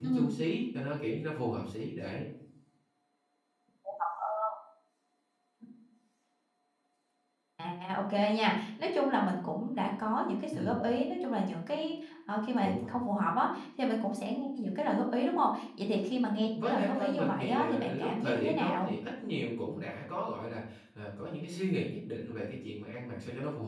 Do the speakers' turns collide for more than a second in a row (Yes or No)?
Yes